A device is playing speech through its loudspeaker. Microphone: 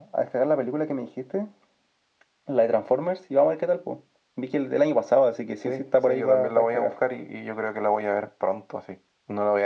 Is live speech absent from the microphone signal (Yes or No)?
Yes